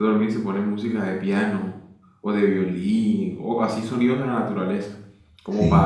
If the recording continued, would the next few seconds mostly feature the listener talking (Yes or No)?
No